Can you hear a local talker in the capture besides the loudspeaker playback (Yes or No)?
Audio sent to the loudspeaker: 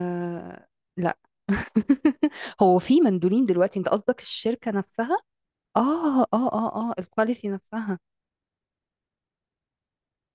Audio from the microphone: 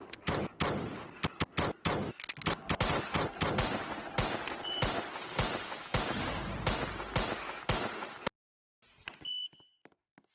No